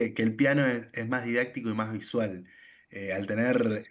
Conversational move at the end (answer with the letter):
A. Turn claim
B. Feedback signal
B